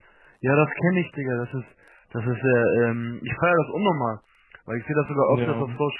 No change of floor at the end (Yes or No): Yes